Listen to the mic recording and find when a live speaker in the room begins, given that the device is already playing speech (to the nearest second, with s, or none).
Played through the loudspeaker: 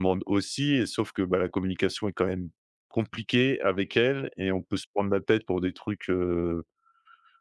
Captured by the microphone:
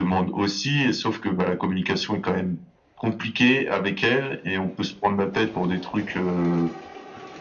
none